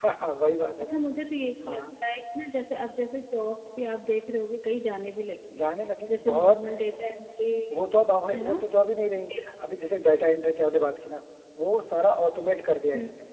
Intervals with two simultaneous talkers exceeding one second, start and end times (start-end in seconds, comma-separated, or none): none